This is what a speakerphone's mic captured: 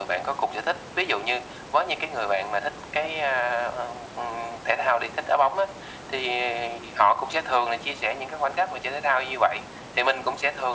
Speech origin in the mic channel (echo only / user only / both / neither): echo only